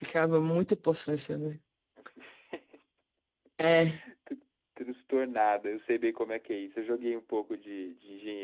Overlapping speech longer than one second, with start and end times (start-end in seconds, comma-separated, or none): none